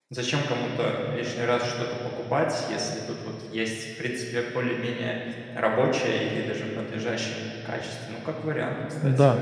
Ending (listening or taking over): taking over